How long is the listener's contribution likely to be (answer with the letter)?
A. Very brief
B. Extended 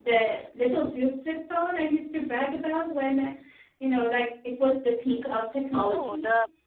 B